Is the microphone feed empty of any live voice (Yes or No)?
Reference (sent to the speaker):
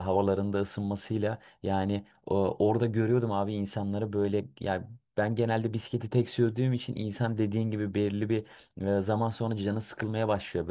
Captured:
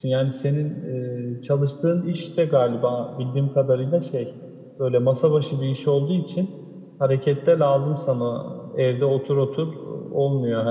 No